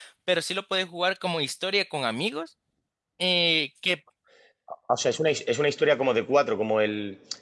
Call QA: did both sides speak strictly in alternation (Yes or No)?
Yes